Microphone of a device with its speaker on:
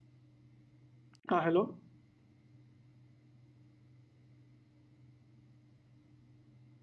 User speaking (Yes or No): Yes